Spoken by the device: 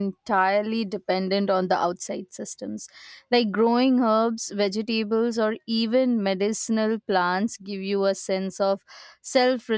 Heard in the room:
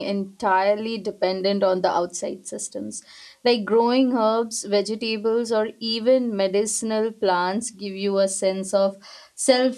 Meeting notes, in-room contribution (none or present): none